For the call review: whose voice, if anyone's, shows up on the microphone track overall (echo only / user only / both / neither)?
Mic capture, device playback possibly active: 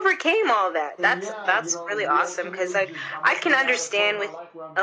both